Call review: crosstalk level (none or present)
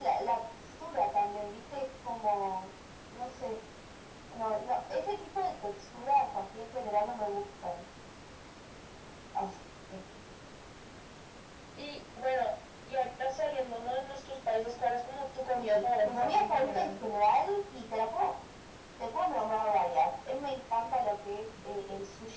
present